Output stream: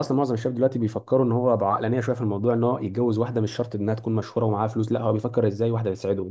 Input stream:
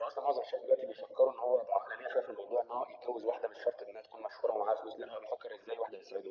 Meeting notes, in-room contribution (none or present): none